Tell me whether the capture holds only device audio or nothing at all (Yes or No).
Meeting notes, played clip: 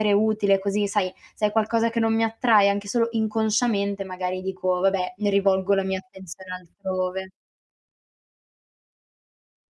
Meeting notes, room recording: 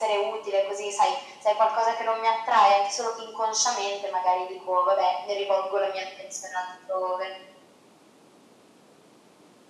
Yes